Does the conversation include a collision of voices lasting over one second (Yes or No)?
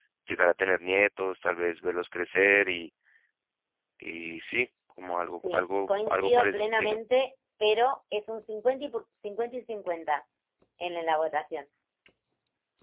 Yes